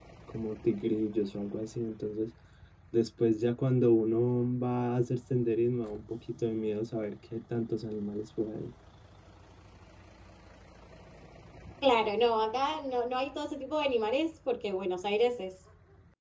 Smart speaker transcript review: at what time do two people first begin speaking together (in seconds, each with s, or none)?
none